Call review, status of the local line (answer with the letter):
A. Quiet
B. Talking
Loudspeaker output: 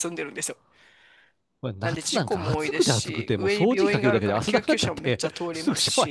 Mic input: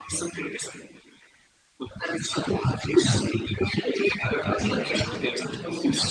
B